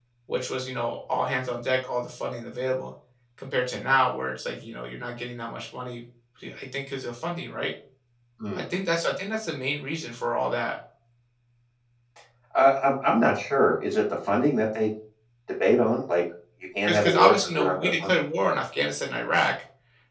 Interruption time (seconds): 17 s

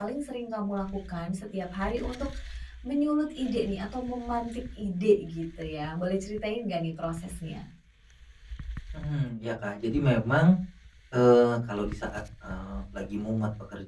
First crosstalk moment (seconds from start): none

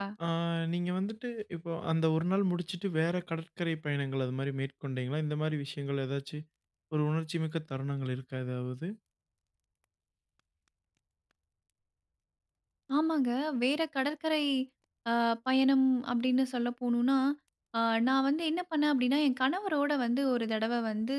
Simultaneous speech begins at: none

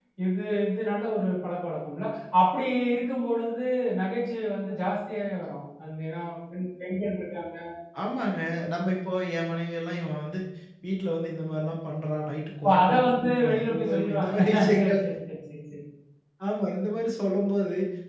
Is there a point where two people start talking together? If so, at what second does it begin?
13 s

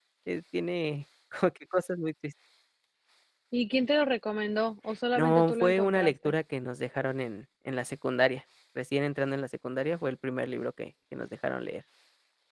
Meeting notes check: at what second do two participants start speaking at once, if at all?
5 s

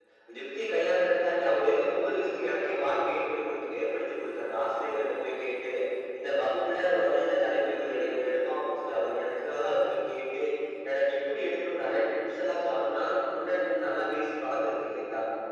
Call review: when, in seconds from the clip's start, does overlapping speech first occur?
none

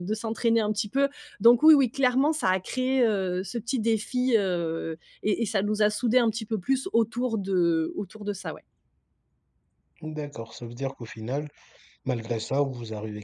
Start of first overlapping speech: none

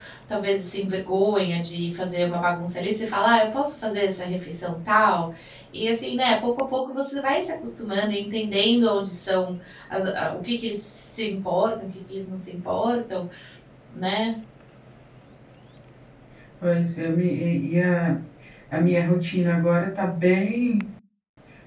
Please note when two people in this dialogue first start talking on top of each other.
none

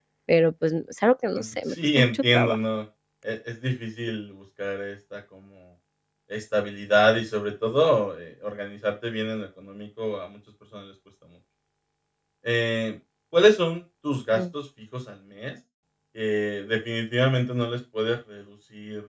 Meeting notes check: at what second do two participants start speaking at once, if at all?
1 s

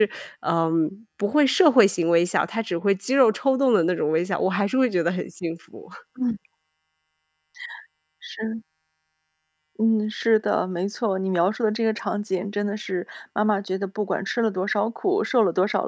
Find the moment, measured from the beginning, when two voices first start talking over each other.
none

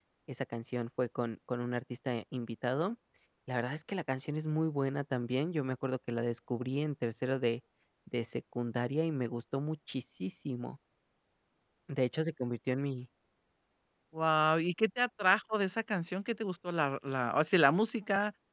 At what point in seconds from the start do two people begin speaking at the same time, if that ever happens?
none

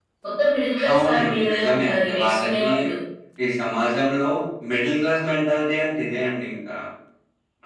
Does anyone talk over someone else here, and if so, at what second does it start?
1 s

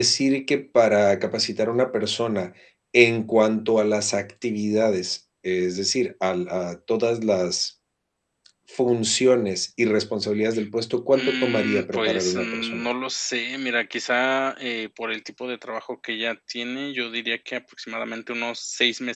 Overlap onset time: 11 s

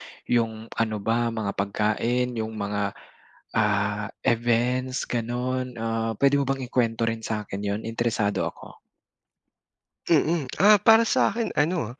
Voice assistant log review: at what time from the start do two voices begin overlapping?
none

